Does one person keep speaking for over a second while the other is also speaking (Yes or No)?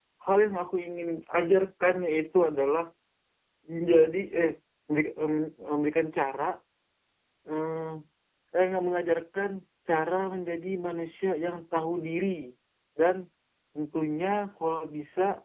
No